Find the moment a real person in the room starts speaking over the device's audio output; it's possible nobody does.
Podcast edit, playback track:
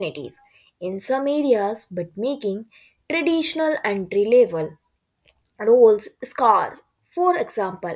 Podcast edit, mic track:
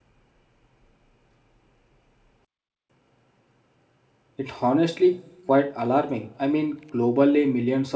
4 s

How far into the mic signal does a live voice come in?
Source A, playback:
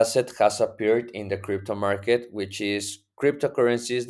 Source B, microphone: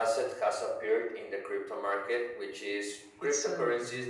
3 s

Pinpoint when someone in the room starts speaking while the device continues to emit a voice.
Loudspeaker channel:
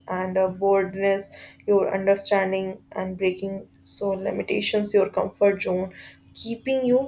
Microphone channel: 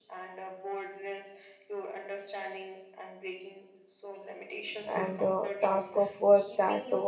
5 s

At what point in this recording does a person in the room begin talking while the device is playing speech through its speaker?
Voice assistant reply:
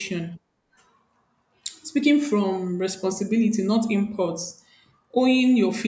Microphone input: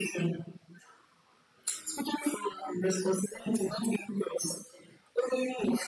none

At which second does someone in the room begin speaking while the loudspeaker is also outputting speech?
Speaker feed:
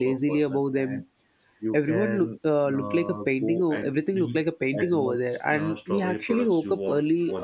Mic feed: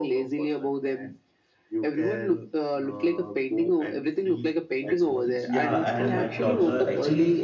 5 s

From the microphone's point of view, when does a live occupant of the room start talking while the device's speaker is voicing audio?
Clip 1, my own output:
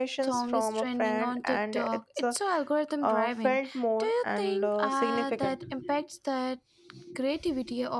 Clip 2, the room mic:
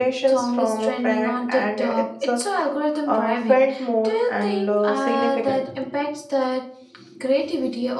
none

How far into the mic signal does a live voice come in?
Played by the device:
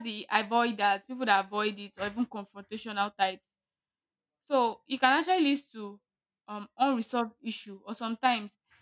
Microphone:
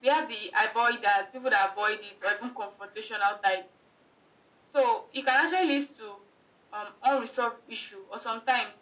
none

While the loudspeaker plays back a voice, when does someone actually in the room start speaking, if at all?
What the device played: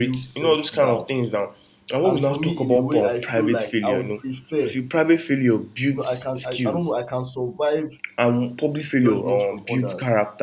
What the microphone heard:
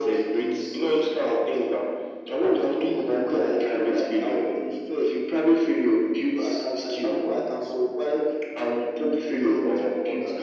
none

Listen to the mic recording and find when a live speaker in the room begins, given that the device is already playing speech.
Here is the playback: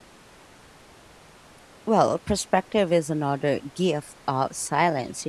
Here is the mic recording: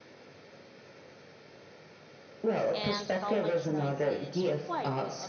3 s

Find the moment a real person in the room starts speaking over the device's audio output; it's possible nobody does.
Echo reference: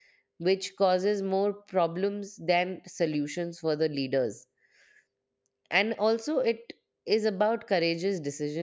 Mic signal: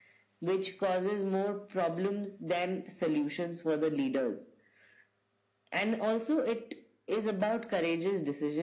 none

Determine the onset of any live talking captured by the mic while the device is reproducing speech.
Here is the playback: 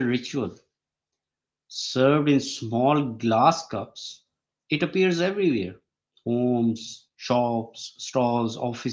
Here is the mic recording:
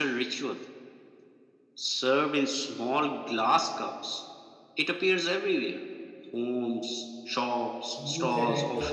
8 s

